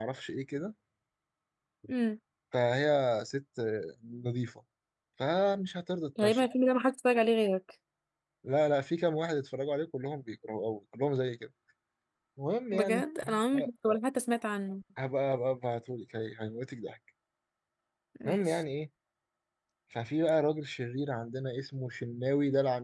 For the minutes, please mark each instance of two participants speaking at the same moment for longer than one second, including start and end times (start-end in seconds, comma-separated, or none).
12.7-14.0